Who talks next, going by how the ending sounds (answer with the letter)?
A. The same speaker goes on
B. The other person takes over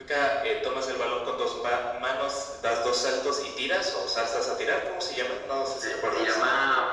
B